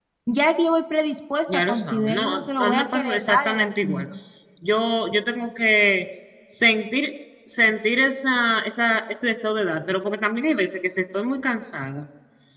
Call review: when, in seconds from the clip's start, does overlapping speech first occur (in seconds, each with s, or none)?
1.5 s